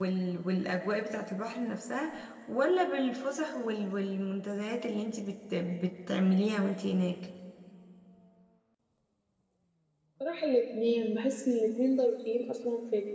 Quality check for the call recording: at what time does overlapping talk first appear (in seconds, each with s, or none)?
none